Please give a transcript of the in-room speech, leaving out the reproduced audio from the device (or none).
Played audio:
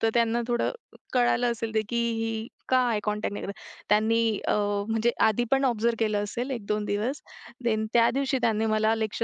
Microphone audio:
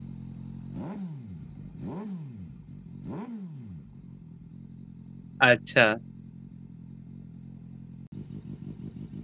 अच्छा.